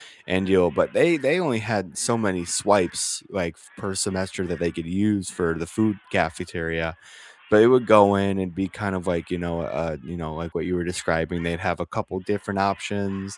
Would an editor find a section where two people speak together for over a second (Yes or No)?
No